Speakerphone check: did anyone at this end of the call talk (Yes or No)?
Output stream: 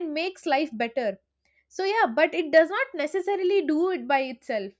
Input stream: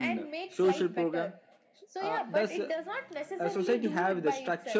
Yes